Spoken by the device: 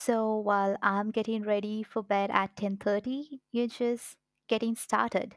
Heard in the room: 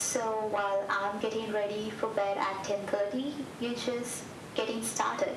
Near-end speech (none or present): none